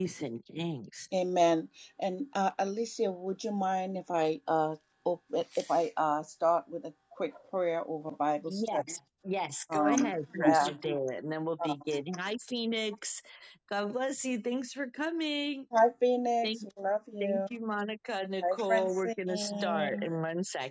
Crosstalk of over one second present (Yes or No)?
Yes